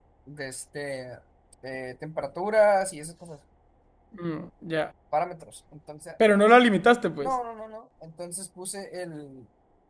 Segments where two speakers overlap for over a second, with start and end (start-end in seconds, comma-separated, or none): none